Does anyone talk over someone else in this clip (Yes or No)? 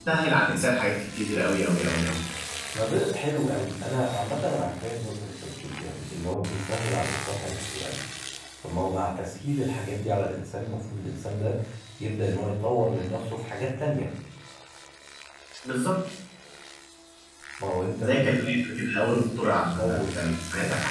Yes